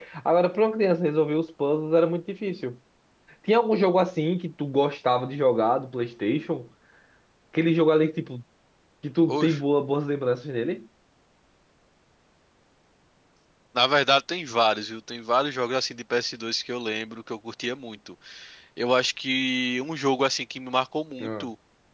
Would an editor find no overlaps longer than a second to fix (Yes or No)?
Yes